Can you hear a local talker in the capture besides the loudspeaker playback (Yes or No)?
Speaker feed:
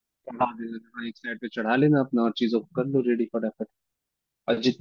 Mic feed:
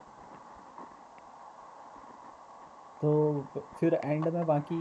Yes